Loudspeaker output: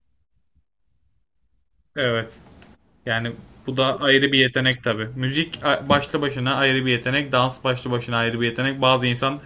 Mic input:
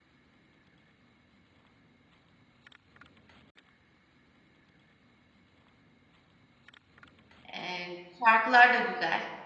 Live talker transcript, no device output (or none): Ee, şarkılar da güzel.